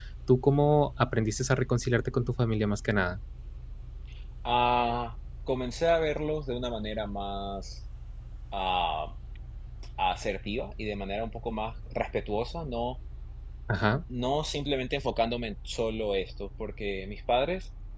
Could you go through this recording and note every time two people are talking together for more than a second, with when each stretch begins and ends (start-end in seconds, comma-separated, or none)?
none